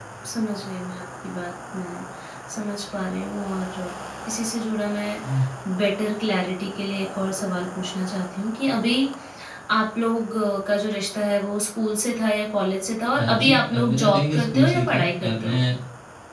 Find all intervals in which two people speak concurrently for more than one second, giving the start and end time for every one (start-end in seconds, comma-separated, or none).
13.1-15.6